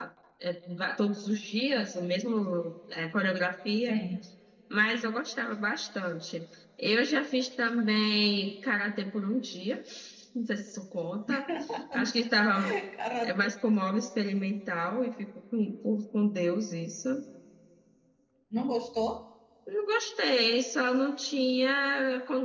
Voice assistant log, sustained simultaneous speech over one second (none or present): none